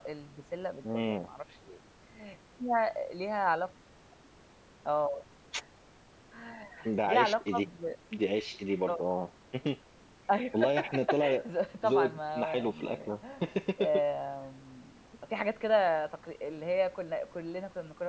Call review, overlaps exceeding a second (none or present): present